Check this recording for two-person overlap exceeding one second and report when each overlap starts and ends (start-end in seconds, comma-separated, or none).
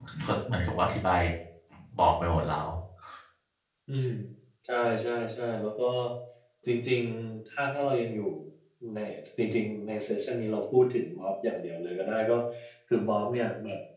none